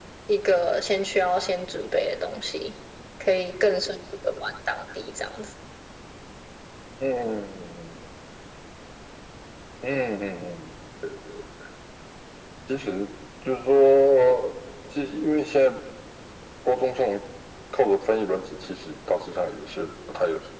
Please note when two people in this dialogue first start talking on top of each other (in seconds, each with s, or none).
none